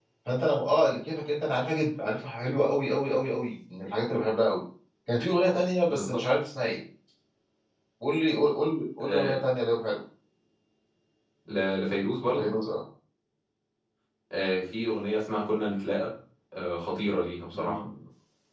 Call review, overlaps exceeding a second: none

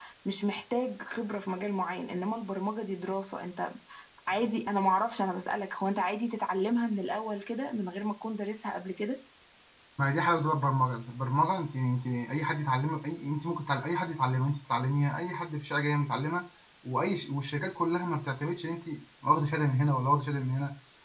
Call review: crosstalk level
none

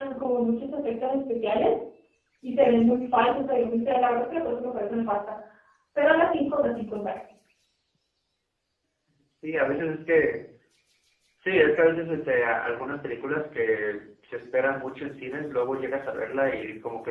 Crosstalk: none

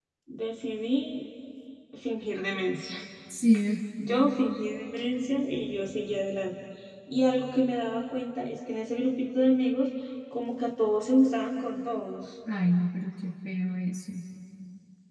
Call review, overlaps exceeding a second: none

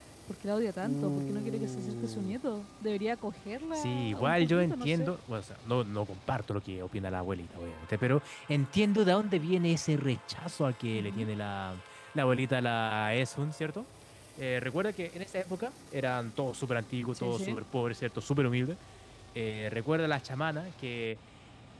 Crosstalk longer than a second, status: present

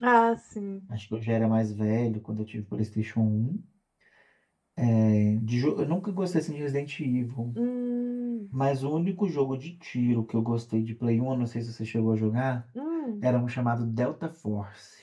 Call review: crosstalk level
none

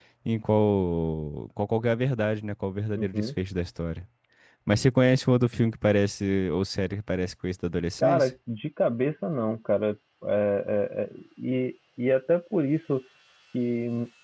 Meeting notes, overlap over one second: none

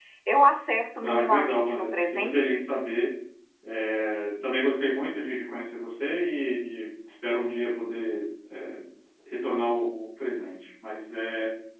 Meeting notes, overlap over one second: present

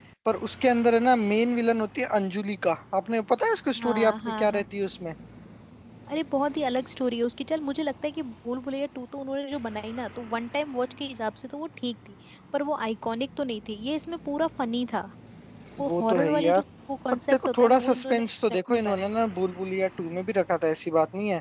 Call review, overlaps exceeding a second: present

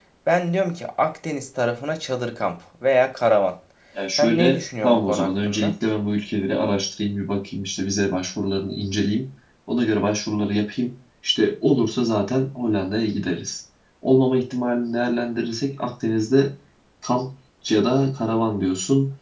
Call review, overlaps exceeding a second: present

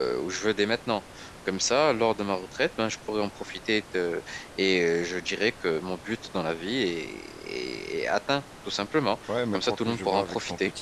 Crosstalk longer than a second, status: present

